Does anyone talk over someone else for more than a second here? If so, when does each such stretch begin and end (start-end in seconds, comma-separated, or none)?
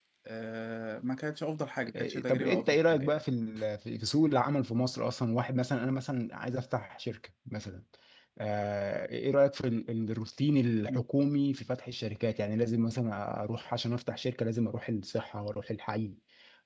2.0-3.2